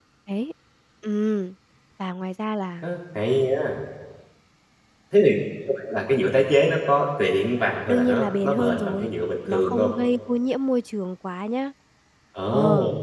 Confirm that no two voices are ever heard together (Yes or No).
No